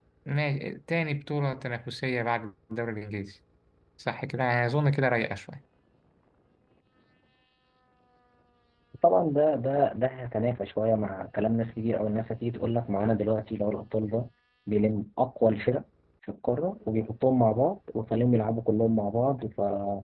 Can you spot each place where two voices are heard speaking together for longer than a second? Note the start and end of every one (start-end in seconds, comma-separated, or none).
none